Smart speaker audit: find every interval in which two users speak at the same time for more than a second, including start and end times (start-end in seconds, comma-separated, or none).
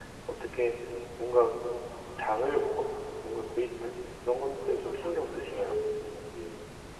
4.4-5.8